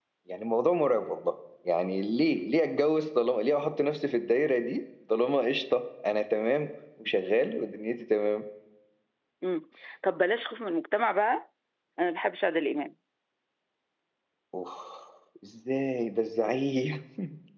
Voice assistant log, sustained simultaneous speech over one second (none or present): none